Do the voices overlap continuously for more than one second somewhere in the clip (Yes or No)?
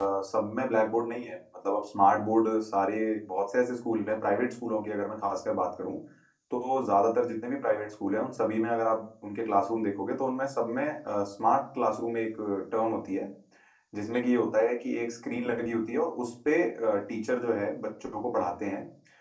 No